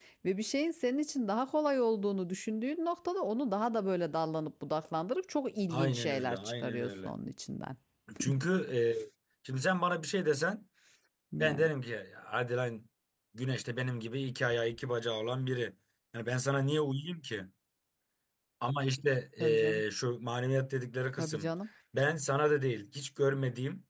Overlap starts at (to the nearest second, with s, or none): 6 s